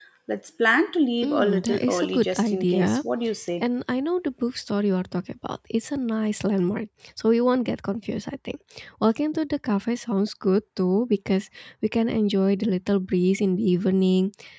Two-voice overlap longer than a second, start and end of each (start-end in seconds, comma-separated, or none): 1.2-3.0